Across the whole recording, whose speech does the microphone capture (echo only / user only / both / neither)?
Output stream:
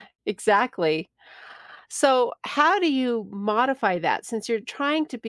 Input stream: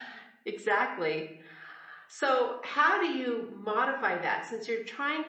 echo only